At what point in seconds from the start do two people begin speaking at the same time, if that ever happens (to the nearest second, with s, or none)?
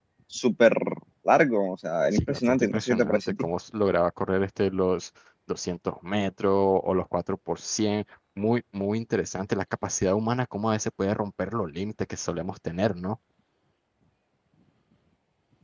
2 s